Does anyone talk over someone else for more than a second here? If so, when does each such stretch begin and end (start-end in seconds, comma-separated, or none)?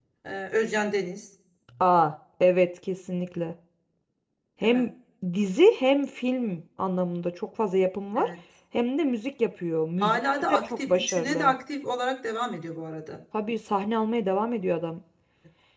10.0-11.5